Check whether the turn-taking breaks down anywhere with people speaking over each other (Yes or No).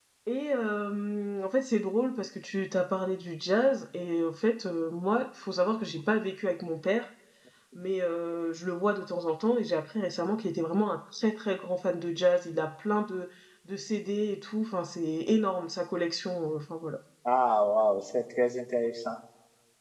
No